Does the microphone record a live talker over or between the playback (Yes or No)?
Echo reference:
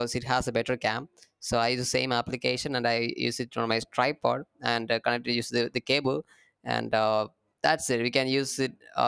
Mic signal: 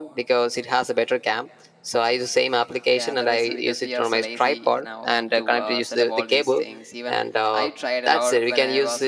Yes